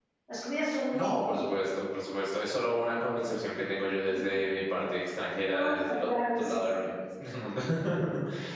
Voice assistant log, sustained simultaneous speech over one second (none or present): present